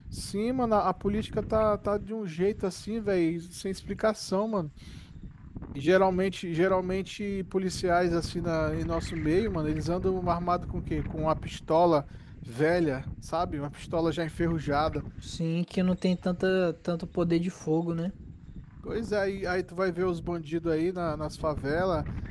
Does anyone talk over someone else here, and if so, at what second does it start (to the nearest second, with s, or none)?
none